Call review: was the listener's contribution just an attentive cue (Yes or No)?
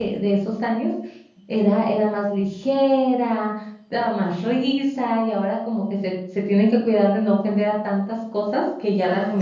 No